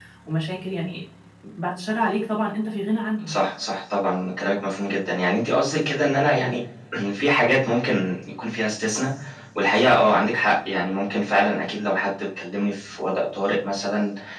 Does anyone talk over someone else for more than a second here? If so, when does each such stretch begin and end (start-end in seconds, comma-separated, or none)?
none